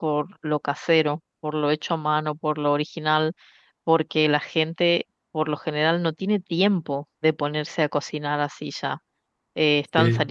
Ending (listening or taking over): listening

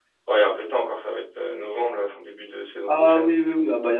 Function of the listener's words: taking over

